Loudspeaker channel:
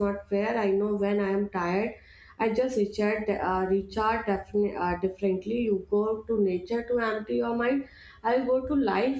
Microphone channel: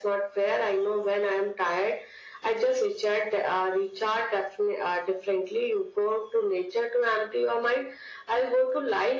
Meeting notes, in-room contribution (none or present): none